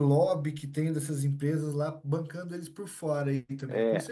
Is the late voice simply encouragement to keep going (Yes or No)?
No